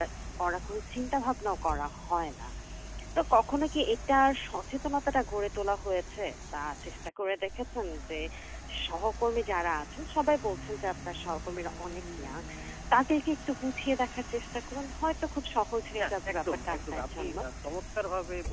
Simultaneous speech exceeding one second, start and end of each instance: 16.0-17.4

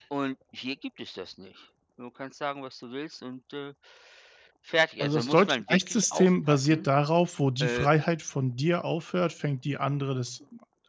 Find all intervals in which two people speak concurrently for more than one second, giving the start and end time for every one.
5.0-6.9

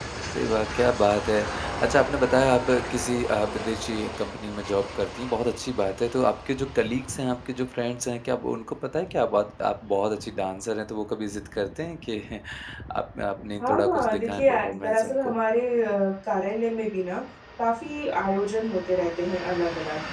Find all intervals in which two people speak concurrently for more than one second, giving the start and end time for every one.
13.6-15.4

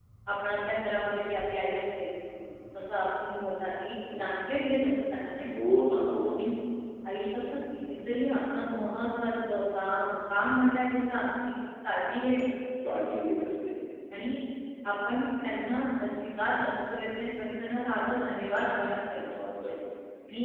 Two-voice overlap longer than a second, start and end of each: none

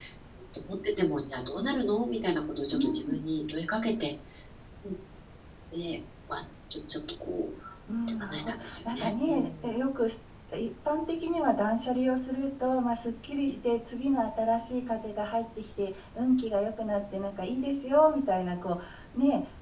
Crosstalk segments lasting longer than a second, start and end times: 8.2-9.7

